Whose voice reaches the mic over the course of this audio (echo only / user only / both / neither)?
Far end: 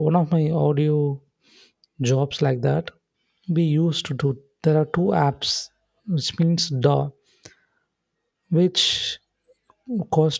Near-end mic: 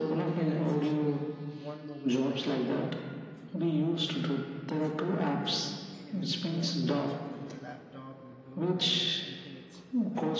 both